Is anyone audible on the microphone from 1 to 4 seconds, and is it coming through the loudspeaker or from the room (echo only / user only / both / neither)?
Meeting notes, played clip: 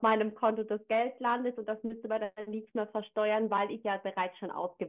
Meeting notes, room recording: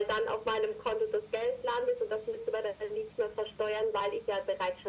echo only